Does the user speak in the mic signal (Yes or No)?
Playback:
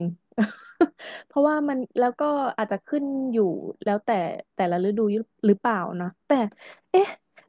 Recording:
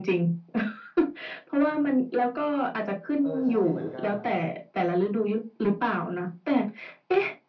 Yes